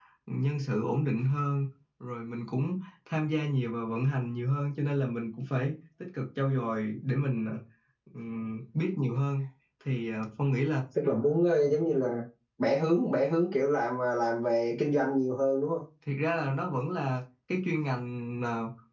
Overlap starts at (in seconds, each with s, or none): none